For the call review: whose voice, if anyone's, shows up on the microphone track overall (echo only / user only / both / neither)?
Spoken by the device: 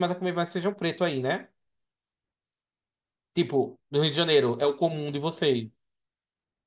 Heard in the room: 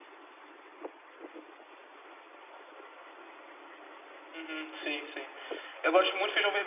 user only